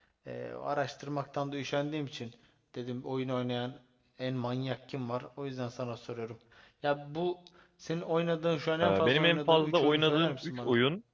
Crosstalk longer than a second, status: present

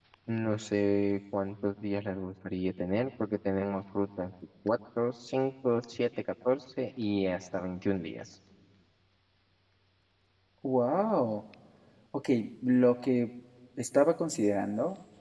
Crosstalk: none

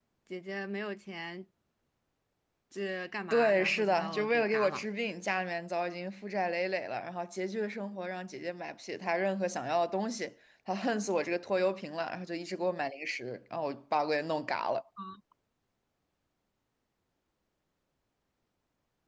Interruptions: present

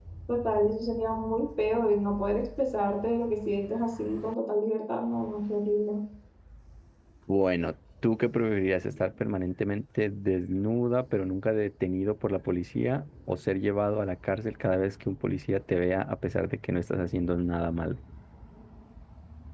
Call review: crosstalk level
none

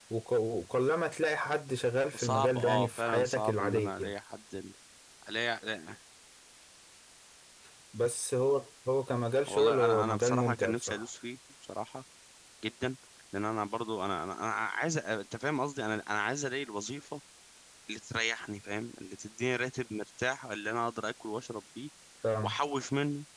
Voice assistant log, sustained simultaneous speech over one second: present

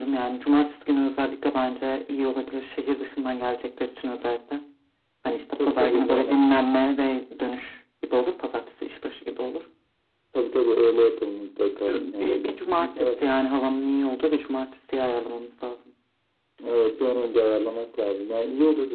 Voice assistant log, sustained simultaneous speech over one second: present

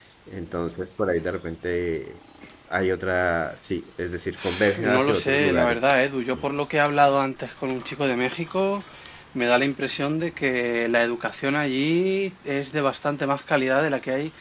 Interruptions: present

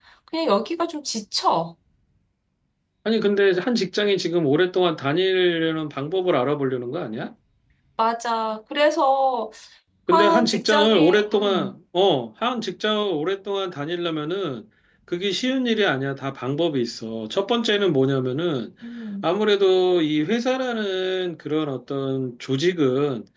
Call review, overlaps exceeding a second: present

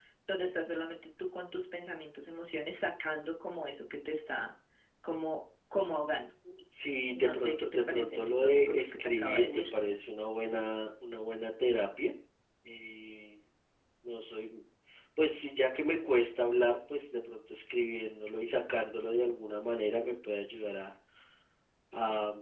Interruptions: present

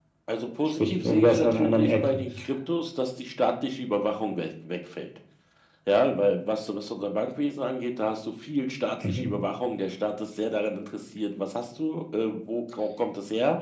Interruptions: present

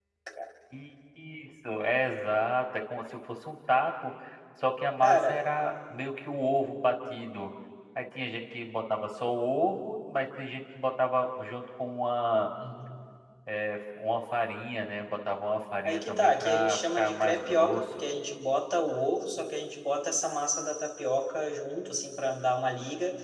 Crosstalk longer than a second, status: present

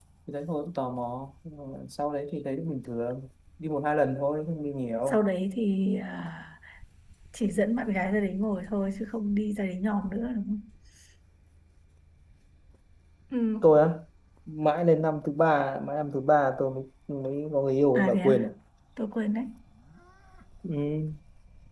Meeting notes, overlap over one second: none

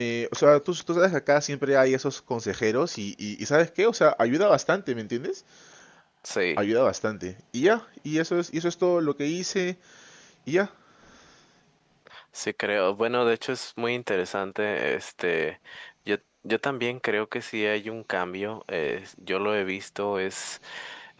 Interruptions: none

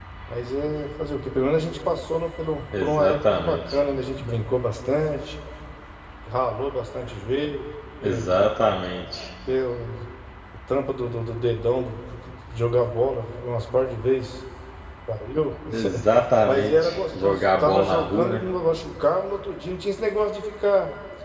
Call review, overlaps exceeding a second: present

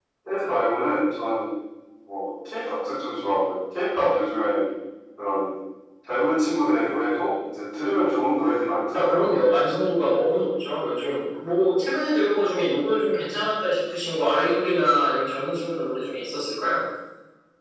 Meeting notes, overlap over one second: none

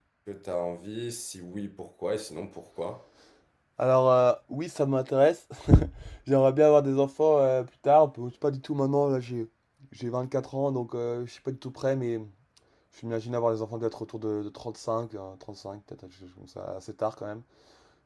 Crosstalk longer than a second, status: none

